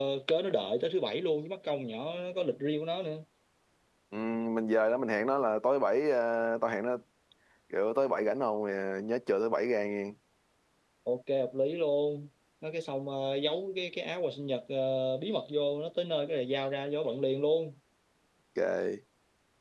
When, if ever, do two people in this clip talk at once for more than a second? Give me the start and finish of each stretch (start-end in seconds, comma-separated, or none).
none